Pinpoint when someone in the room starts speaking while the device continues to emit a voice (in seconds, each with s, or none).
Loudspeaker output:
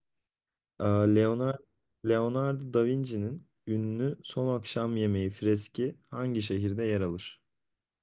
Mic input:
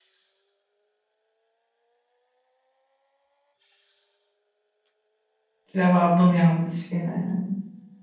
5.6 s